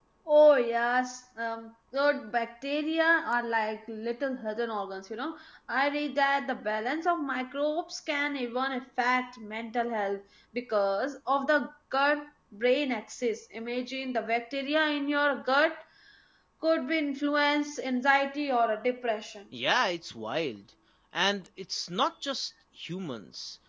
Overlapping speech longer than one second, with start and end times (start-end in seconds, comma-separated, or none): none